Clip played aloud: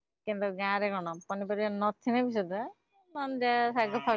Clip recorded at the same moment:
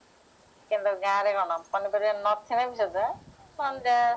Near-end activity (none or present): none